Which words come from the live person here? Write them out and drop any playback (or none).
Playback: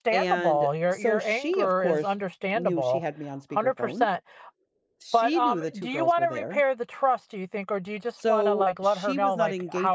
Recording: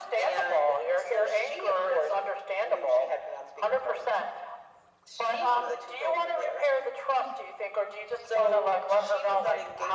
none